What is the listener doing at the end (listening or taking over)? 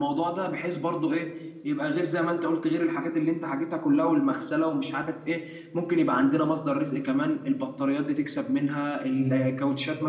taking over